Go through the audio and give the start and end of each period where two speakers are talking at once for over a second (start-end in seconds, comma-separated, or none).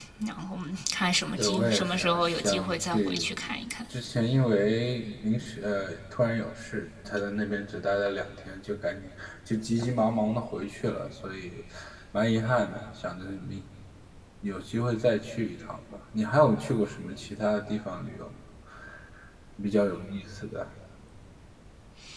1.4-3.3